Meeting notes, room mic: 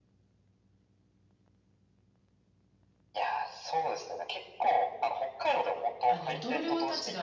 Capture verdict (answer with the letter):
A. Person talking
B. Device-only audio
A